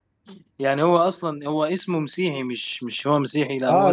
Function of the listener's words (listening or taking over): taking over